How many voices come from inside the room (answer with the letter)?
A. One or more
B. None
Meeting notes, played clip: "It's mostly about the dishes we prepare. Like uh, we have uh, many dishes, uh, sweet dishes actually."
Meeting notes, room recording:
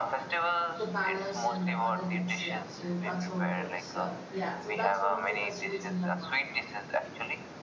A